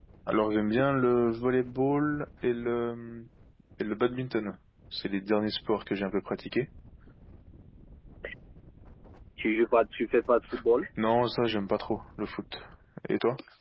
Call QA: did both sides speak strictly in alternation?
Yes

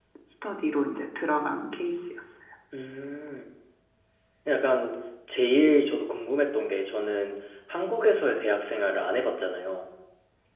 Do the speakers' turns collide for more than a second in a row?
No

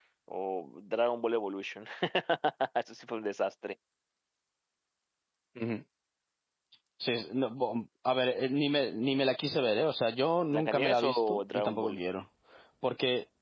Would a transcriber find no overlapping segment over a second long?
No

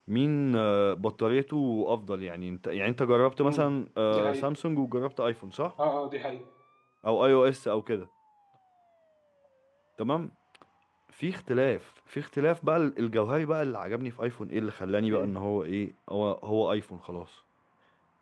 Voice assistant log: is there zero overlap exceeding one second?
Yes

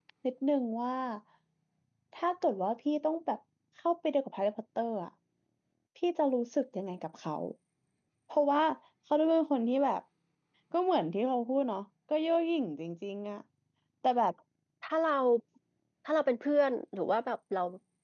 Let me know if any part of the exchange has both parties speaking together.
No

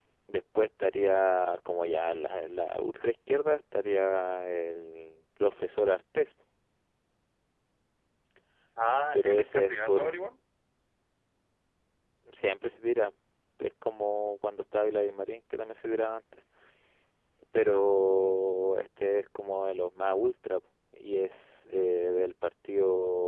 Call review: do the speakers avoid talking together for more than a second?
No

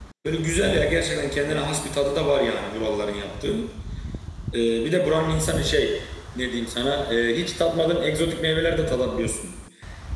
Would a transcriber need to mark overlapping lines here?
No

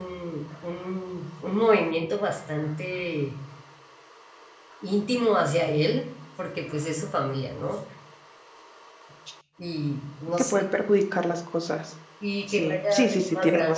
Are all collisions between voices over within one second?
No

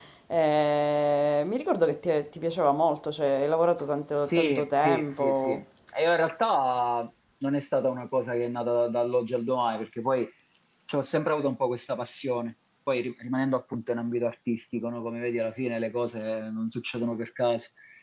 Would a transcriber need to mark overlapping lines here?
Yes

